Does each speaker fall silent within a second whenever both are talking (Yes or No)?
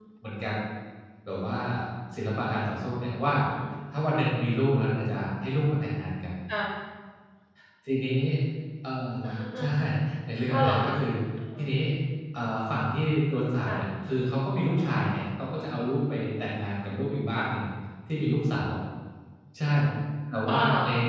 Yes